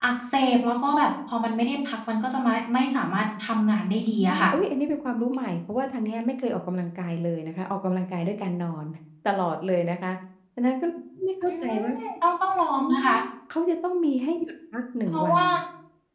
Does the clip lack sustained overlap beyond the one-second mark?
Yes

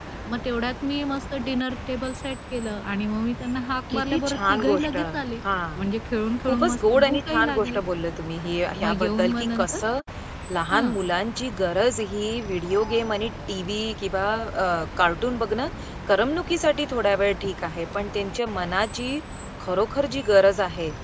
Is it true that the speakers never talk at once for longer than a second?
No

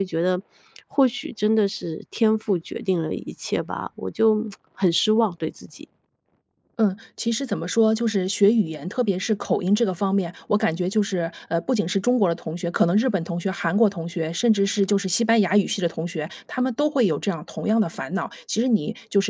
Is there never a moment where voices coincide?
Yes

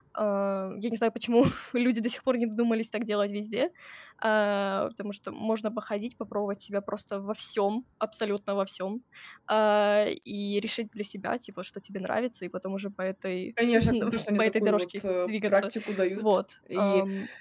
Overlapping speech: Yes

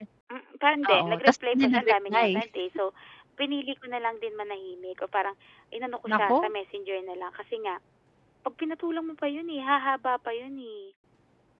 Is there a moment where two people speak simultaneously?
Yes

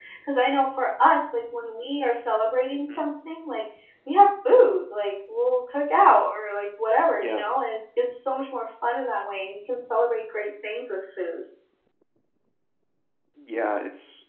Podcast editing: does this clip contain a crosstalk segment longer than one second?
No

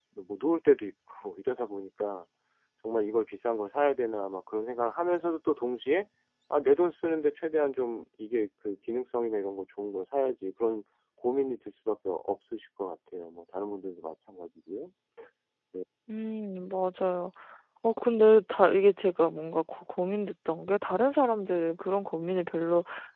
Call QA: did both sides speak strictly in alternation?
Yes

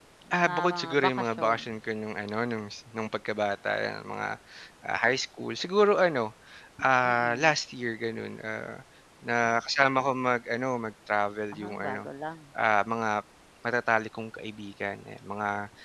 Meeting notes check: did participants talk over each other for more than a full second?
Yes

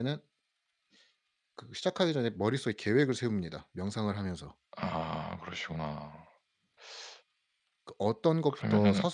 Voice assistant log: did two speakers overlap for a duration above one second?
No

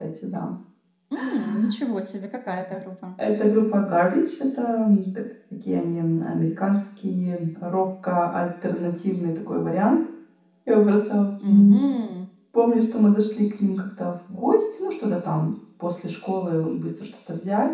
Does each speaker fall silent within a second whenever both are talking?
Yes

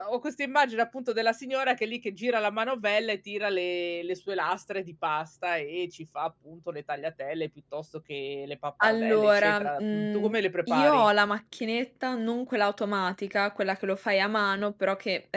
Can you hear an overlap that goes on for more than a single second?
Yes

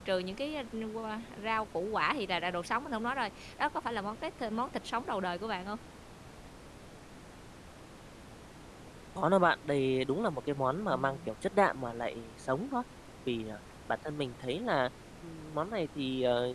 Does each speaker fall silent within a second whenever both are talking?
Yes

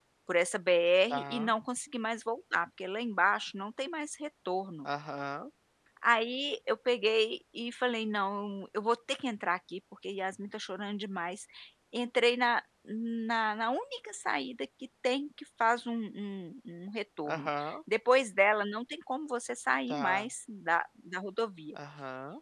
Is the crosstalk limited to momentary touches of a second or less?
Yes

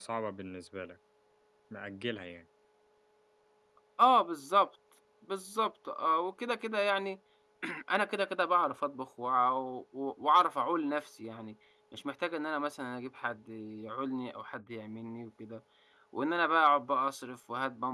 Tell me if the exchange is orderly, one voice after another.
Yes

